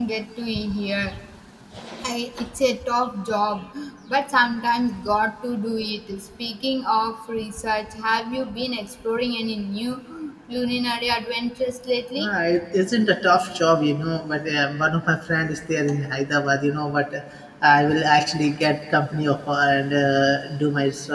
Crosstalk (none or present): none